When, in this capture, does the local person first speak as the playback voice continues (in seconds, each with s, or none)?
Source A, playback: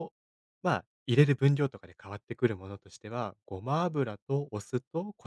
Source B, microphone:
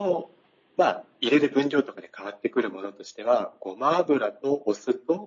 none